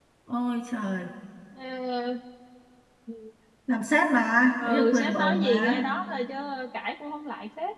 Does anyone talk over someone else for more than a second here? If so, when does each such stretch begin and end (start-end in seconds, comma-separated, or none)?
4.6-5.8